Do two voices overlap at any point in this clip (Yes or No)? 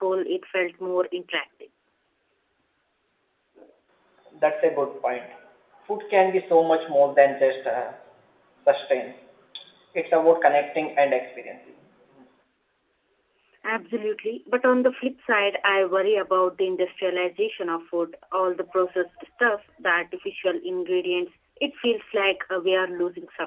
No